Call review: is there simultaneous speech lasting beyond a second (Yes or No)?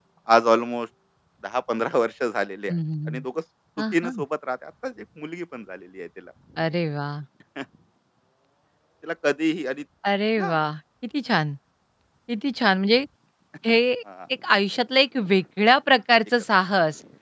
No